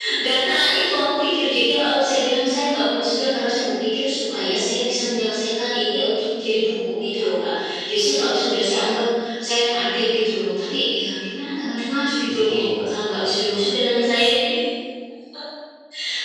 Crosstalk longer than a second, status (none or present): present